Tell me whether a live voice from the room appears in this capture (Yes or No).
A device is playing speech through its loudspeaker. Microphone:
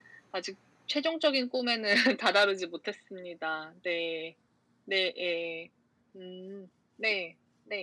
No